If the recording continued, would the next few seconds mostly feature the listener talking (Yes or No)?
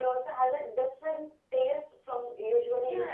Yes